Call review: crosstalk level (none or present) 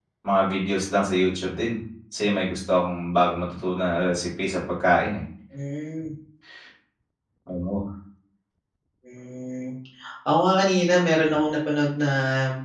none